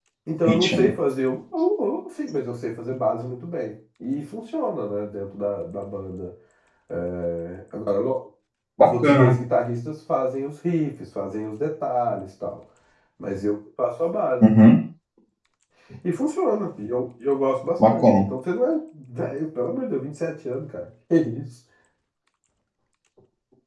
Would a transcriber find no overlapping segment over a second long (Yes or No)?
Yes